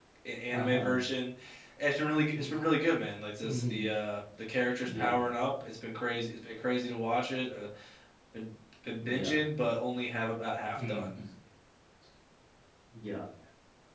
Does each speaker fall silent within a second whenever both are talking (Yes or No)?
Yes